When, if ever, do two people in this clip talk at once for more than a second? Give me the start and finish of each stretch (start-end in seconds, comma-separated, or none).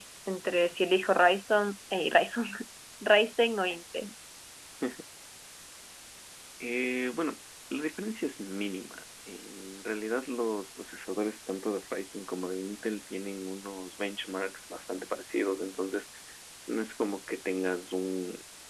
none